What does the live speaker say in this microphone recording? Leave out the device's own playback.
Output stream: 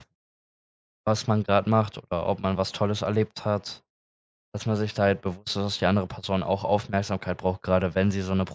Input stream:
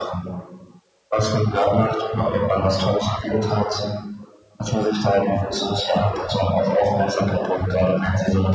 none

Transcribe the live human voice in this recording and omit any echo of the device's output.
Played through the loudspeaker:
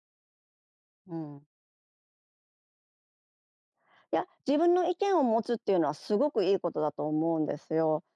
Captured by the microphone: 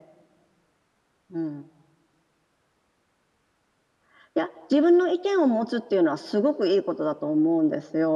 none

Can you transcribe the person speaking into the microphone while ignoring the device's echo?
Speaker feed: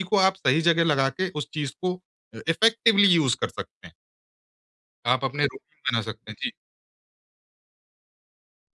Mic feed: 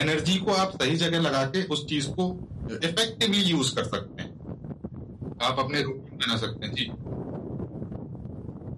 none

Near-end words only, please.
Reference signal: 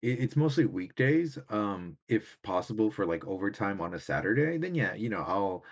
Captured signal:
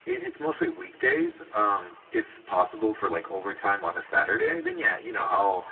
none

